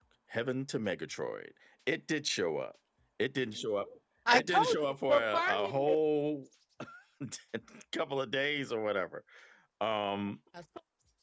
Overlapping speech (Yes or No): Yes